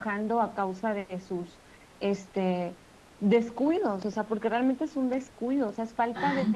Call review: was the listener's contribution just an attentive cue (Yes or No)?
No